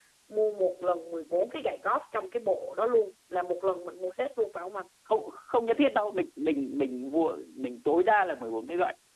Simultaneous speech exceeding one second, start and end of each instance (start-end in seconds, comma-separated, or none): none